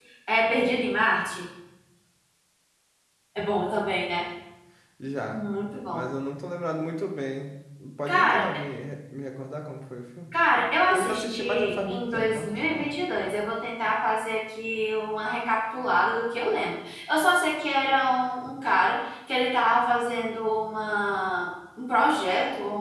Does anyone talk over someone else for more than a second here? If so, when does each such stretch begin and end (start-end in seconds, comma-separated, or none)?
10.9-12.9